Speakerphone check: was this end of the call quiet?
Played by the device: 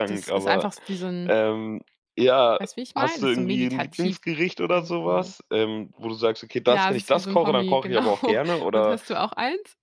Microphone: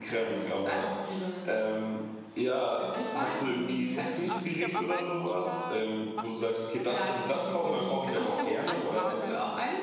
No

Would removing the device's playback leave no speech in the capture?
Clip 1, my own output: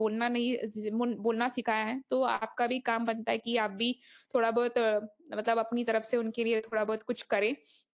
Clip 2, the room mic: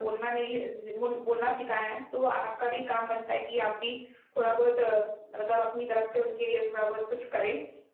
Yes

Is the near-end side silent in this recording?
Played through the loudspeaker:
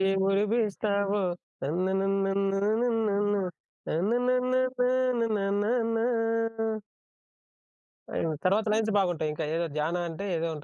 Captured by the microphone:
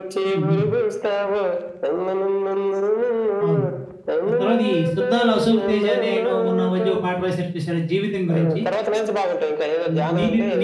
No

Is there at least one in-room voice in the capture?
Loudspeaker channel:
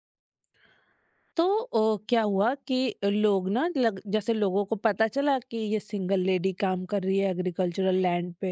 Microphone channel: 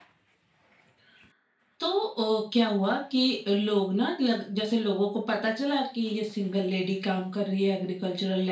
No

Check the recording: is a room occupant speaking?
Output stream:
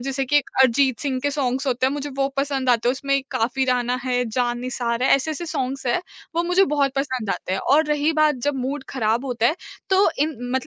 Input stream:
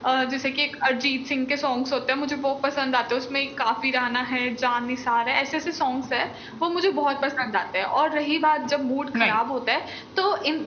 Yes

